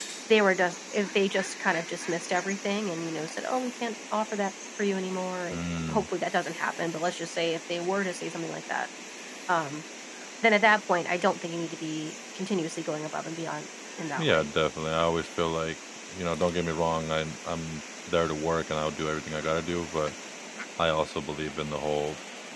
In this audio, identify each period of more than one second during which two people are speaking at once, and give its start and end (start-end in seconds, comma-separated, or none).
none